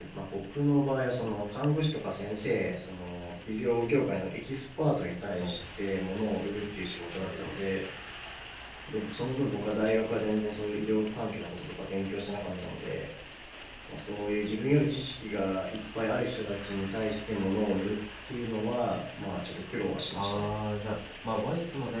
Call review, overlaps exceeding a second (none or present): none